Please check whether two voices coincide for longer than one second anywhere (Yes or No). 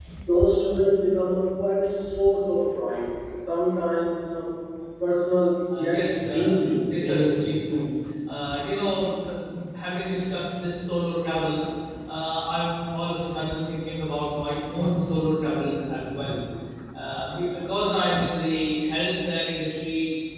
Yes